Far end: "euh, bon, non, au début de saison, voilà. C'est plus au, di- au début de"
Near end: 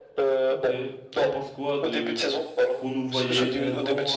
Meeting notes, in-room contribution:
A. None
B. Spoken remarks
B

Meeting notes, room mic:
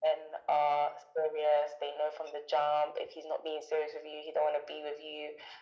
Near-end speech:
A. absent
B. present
A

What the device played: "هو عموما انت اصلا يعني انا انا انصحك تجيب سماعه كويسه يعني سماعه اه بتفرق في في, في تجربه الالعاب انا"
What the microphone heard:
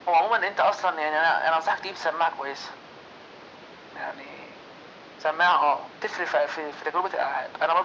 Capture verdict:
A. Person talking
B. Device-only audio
B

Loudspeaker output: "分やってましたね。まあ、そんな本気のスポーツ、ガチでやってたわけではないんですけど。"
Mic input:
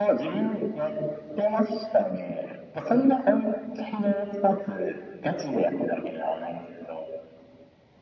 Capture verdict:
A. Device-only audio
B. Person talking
A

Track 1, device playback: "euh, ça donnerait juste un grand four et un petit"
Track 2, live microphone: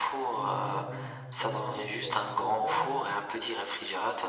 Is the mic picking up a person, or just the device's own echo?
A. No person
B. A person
B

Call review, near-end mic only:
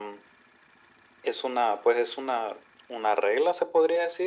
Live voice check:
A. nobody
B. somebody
A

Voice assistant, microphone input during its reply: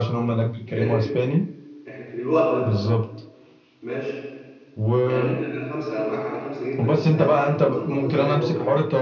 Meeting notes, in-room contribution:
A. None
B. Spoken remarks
B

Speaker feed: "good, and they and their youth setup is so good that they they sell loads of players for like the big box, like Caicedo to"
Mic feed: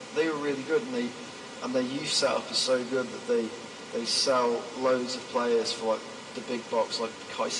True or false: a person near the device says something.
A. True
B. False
B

